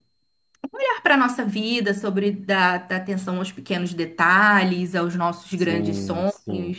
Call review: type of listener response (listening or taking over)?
taking over